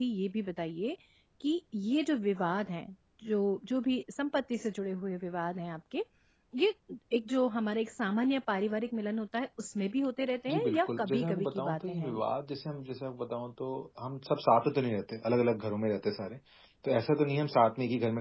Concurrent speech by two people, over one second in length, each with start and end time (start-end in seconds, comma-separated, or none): 10.5-12.2